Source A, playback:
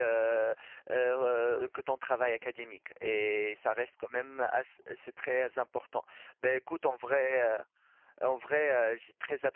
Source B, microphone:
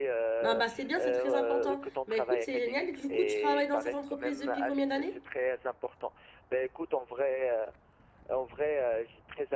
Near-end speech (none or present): present